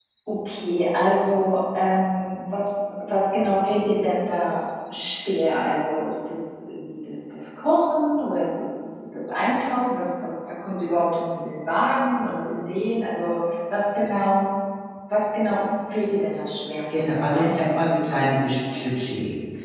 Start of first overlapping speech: 16.9 s

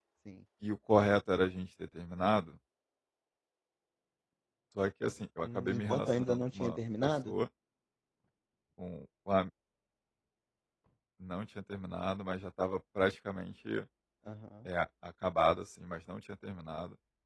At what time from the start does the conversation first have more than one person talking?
5.4 s

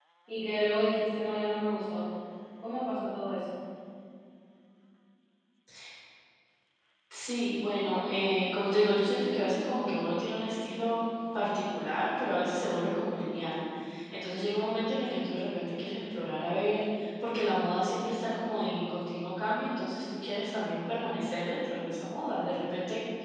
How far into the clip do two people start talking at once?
none

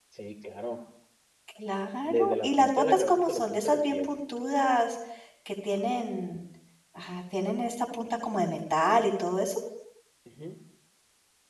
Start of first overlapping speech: 2.0 s

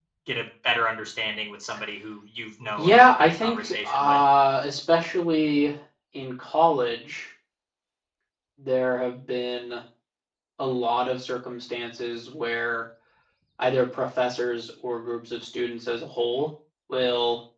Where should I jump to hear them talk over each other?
2.8 s

